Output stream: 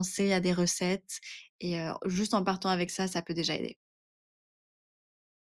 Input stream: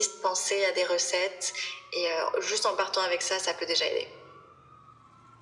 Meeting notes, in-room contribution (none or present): none